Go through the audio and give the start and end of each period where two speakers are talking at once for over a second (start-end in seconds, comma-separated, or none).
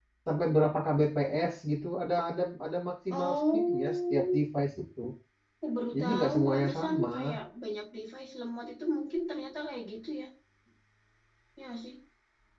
3.1-4.4, 5.9-7.4